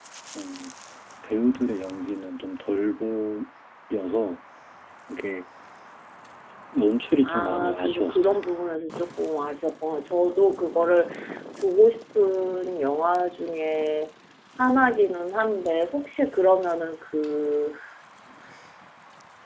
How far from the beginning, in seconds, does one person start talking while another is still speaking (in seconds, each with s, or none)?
7.2 s